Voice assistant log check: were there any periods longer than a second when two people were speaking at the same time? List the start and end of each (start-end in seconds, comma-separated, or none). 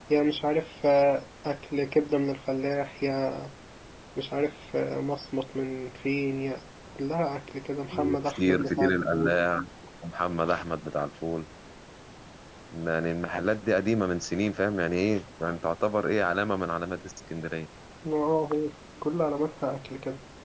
7.9-9.4